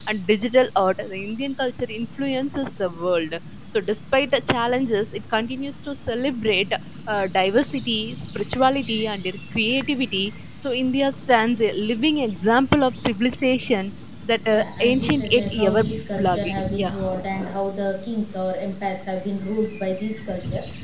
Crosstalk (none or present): present